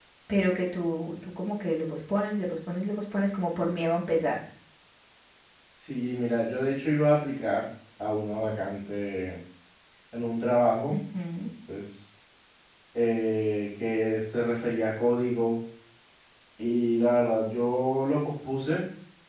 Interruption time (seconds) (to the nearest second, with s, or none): none